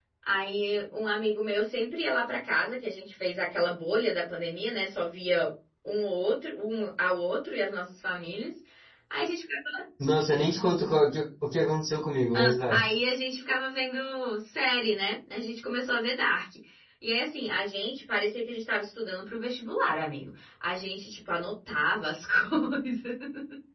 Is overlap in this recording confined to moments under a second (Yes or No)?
Yes